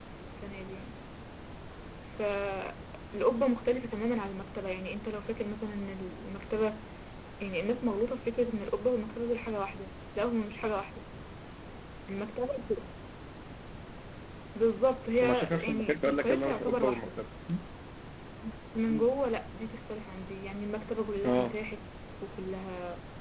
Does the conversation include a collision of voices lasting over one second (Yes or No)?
Yes